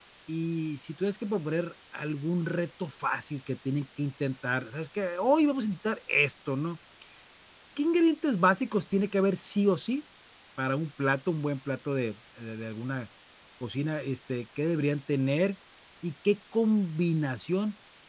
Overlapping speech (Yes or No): No